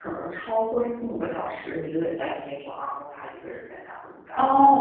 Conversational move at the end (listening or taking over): taking over